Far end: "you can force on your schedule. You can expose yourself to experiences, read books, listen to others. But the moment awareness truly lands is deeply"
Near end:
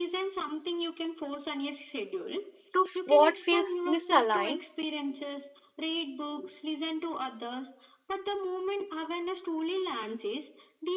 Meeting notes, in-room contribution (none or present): present